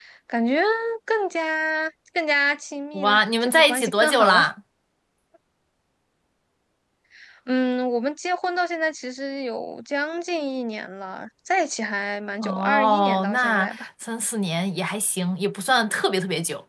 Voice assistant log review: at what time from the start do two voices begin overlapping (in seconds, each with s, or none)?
2.9 s